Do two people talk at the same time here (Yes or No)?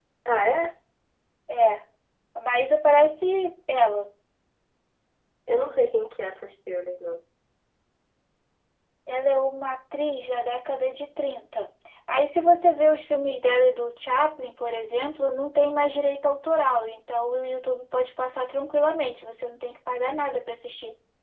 No